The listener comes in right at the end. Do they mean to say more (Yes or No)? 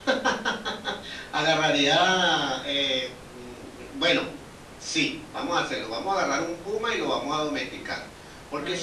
No